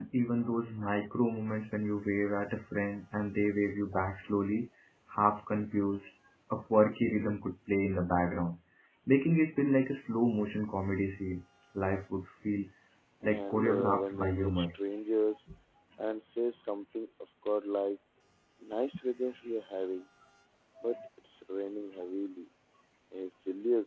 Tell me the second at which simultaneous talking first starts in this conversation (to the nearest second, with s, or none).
13 s